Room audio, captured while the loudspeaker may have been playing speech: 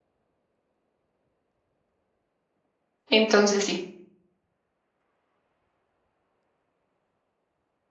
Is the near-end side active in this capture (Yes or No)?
Yes